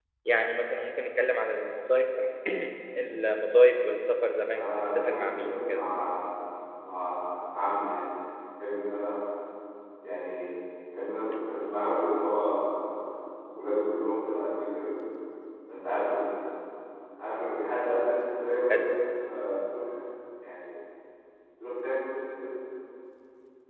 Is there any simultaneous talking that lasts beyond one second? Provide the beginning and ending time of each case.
4.6-5.8

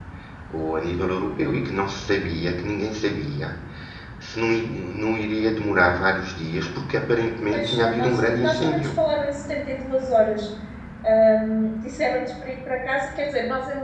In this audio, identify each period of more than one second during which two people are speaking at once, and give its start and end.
7.5-8.9

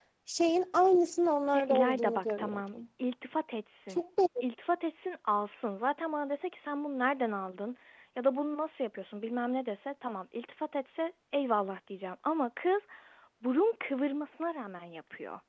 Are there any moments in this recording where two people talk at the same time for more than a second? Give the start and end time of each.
1.5-2.7

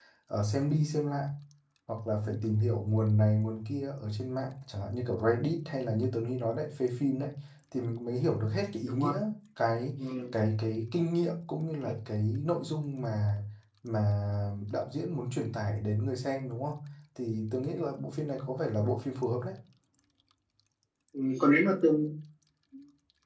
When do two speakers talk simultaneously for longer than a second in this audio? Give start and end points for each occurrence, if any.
none

